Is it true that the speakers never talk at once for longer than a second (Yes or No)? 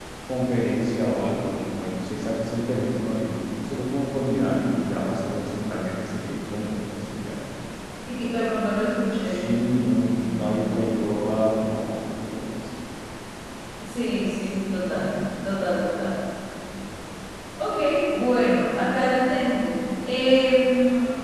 Yes